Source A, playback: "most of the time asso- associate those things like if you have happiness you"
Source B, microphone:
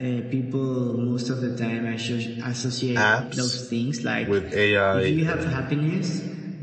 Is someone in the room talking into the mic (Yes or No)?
Yes